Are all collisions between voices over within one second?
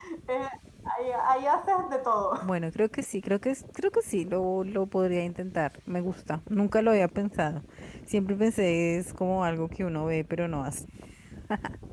Yes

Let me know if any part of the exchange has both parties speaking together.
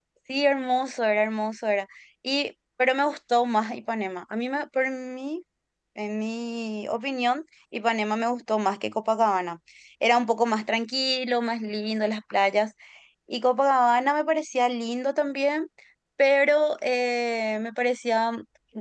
No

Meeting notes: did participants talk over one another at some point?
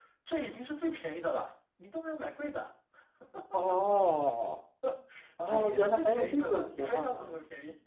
Yes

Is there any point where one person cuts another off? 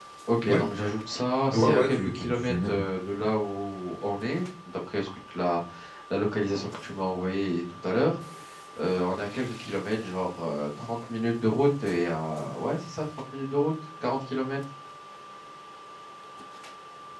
Yes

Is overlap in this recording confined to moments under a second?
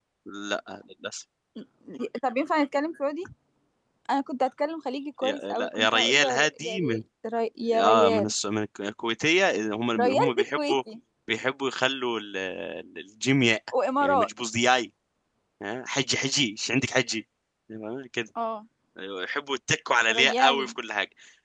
No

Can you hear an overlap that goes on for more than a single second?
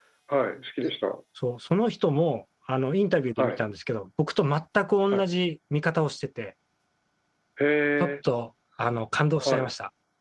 No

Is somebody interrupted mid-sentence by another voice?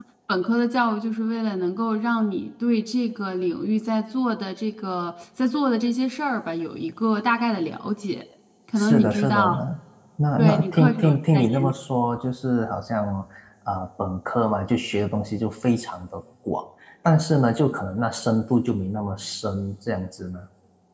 Yes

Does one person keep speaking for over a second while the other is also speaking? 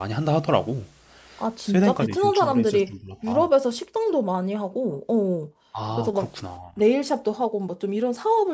Yes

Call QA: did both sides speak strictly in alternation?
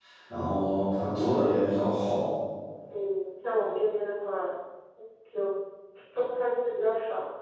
Yes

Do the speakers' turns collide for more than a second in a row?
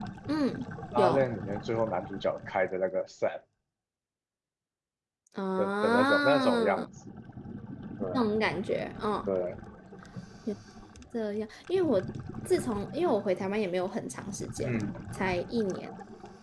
Yes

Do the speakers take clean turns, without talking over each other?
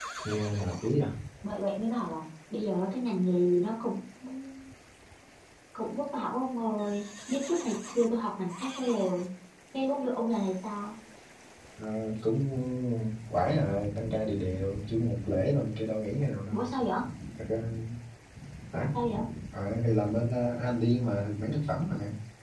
Yes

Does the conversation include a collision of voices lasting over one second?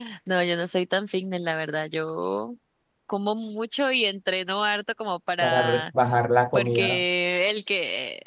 No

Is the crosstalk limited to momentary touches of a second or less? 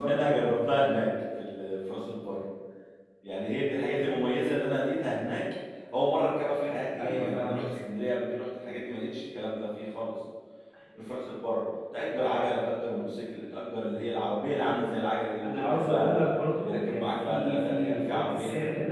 No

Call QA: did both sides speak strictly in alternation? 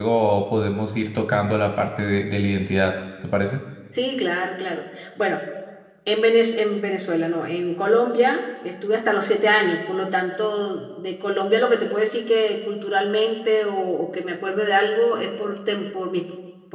Yes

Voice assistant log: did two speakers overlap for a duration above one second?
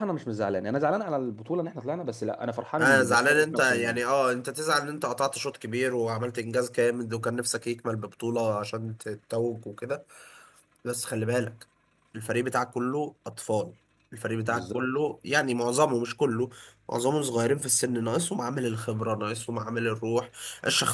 Yes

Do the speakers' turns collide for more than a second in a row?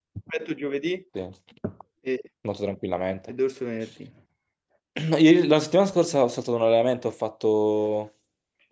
No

